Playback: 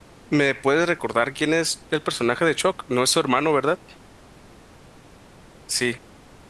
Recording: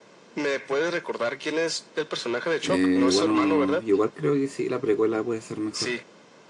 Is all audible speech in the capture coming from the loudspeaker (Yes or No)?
No